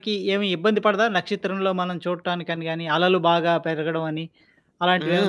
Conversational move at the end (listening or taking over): taking over